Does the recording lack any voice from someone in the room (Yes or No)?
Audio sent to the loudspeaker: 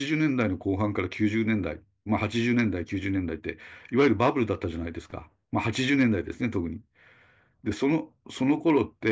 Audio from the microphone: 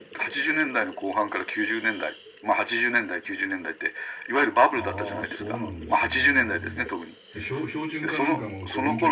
No